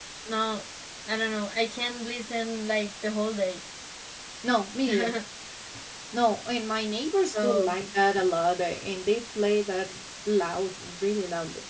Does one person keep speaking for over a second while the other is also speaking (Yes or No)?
No